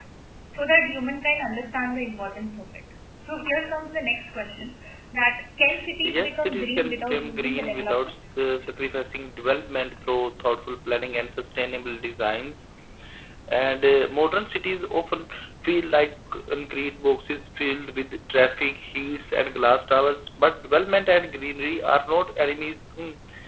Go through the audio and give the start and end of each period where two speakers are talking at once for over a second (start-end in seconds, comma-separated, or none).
6.0-8.1